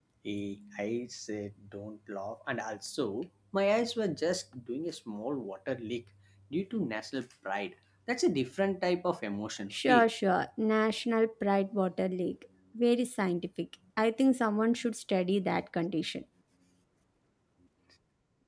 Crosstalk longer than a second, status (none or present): none